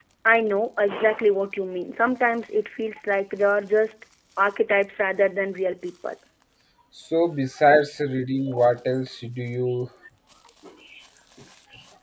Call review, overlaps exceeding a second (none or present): none